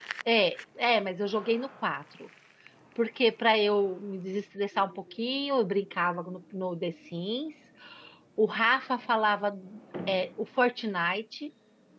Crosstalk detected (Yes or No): No